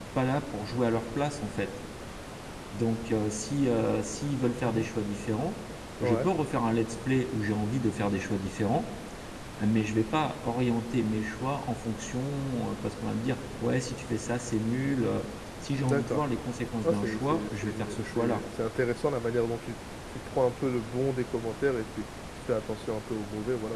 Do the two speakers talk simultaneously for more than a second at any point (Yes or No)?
Yes